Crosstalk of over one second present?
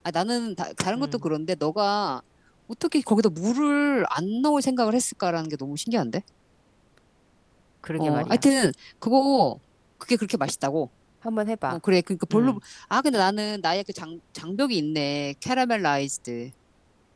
No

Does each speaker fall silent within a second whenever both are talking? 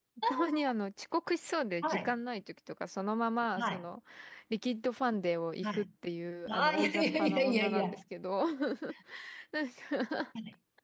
No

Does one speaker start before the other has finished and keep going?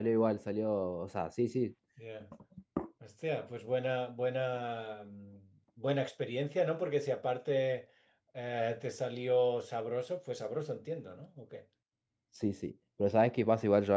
No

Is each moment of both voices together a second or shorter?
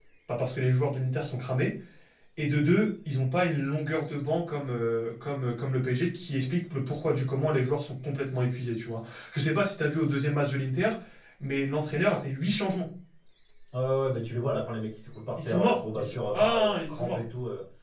No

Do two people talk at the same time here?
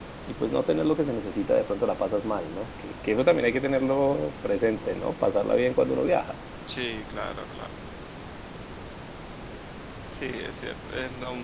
No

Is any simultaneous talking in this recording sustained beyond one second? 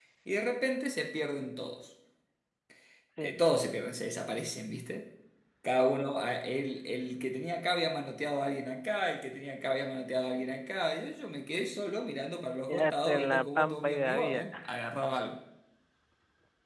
Yes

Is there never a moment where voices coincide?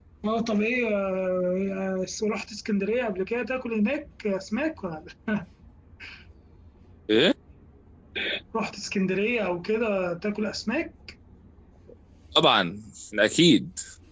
Yes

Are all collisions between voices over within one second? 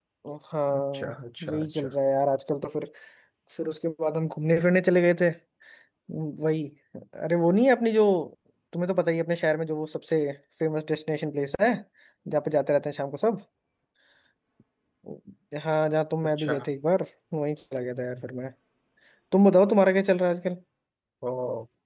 Yes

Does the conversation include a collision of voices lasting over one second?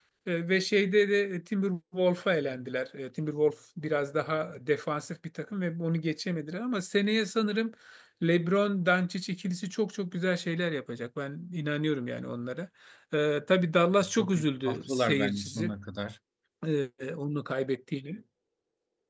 Yes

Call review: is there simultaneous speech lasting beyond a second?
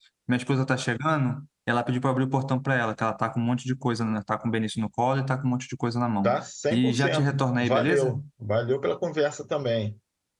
Yes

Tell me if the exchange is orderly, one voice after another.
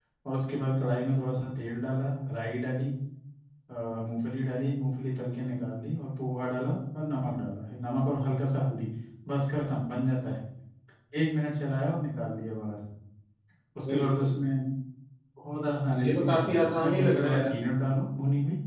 No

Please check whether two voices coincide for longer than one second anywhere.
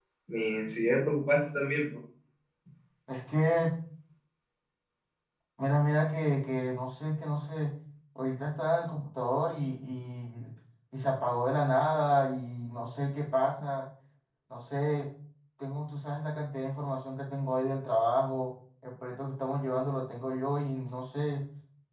No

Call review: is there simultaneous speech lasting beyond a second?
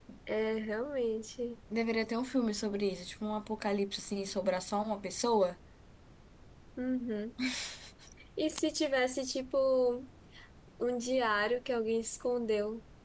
No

